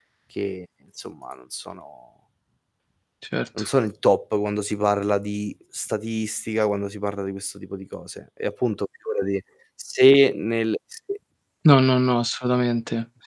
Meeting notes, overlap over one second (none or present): none